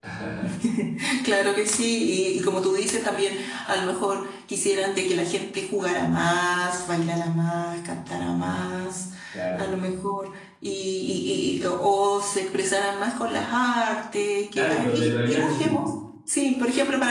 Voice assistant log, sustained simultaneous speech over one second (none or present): present